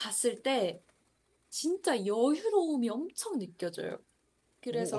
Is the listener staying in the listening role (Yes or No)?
No